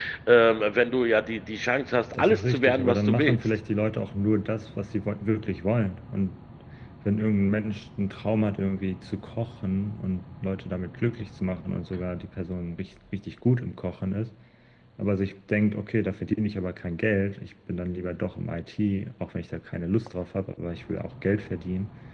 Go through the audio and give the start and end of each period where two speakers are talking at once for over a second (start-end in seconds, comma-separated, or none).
2.1-3.4